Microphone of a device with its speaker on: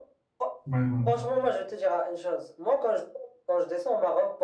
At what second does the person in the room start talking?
0.7 s

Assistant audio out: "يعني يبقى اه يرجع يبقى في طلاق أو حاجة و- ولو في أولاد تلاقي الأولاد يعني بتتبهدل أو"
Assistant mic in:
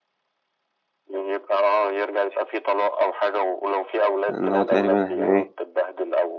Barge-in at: 4.3 s

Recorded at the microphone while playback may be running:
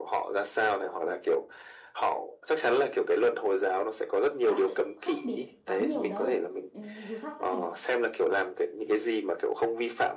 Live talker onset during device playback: 4.4 s

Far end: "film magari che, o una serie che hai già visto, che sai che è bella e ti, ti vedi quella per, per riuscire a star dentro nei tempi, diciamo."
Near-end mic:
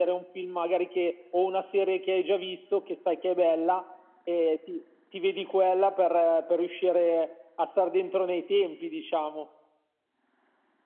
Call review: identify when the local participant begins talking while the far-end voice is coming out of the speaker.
none

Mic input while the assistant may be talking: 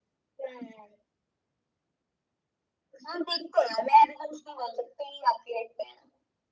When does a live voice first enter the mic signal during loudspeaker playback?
none

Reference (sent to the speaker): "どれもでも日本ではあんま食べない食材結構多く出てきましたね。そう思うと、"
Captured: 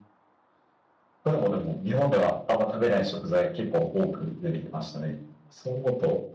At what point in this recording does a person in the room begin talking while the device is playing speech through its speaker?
none

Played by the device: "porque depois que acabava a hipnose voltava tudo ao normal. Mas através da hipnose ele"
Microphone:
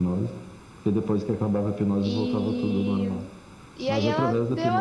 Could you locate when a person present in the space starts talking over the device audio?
2.0 s

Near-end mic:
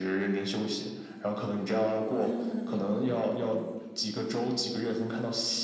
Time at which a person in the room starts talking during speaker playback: 2.1 s

